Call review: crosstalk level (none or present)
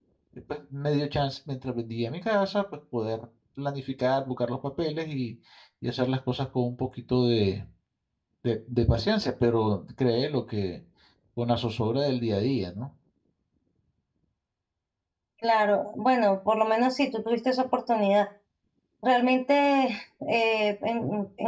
none